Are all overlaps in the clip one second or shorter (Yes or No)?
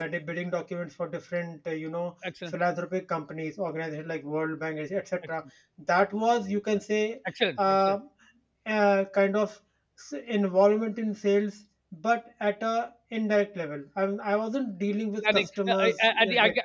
No